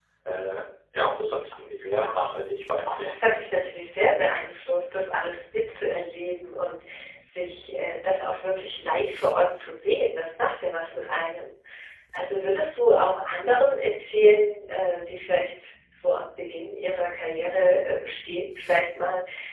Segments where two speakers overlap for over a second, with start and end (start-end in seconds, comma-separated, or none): none